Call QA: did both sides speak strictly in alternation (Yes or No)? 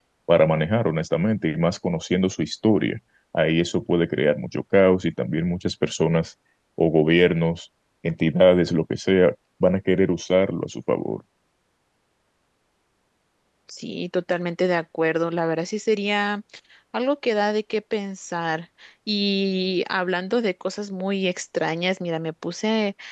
Yes